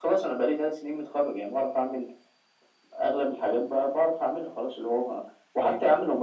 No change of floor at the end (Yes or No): Yes